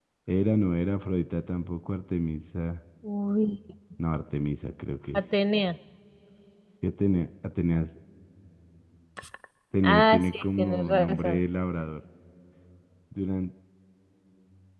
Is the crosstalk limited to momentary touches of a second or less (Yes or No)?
No